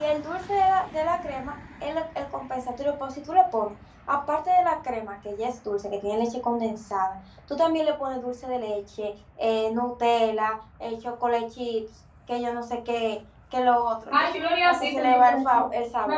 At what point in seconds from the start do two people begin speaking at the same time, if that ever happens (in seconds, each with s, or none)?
14.1 s